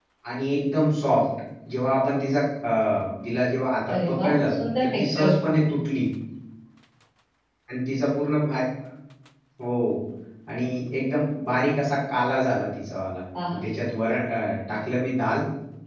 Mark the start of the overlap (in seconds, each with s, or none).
3.9 s